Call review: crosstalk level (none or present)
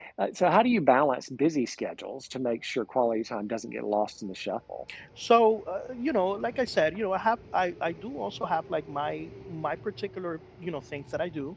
none